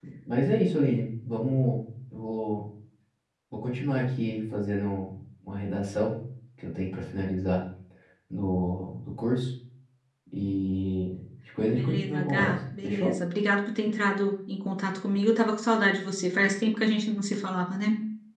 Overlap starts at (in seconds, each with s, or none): 11.7 s